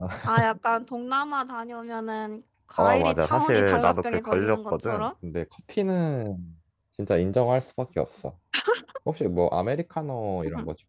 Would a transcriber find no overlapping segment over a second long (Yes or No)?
No